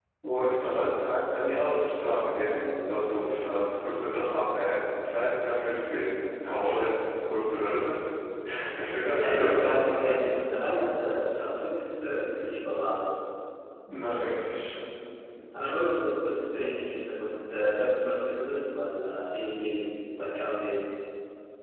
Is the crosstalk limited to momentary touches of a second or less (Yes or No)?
No